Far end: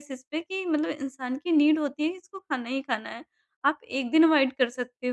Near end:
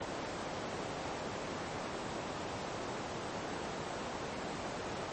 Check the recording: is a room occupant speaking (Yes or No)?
No